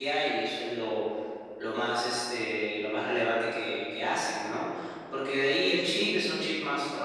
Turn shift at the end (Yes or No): No